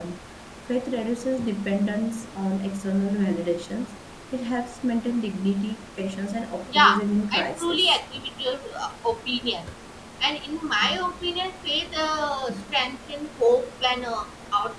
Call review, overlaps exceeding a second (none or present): present